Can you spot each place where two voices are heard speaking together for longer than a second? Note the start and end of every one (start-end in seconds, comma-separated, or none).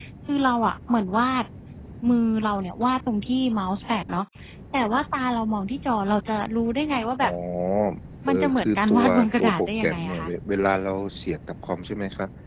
8.3-10.3